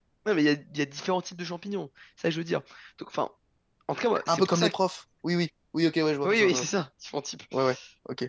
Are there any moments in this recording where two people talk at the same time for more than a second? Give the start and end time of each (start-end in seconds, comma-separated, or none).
none